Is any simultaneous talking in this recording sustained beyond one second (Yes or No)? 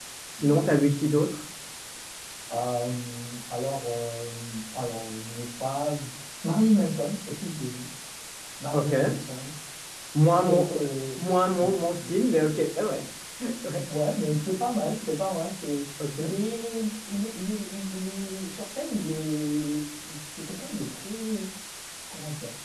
No